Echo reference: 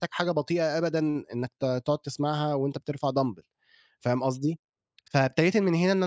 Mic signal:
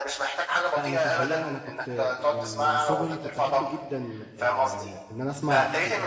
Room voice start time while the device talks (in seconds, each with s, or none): 0.8 s